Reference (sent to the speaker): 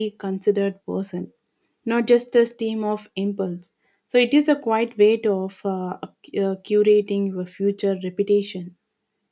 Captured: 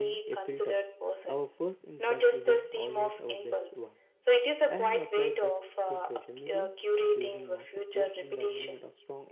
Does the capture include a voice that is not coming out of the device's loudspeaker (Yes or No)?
Yes